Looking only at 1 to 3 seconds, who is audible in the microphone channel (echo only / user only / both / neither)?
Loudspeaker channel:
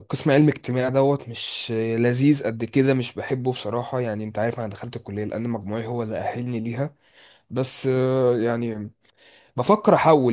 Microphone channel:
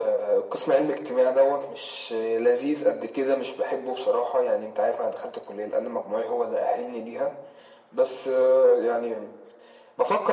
echo only